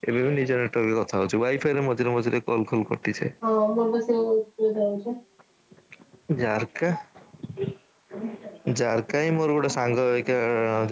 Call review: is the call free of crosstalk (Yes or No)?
Yes